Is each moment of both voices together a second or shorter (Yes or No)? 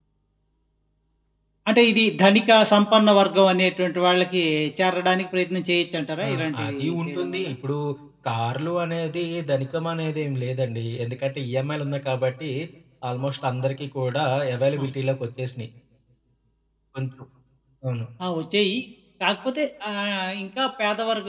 No